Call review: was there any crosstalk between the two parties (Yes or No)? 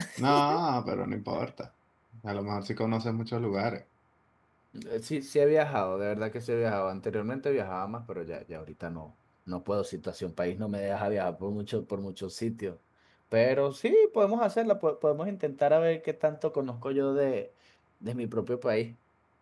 No